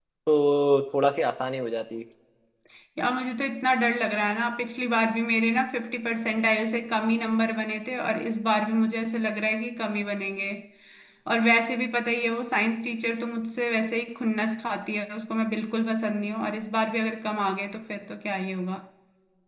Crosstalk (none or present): none